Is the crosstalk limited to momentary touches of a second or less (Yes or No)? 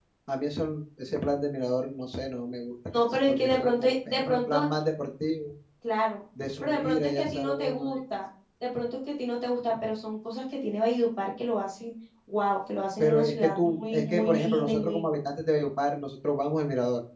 No